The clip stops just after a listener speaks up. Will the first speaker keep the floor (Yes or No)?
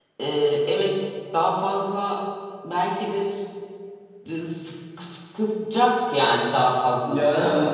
No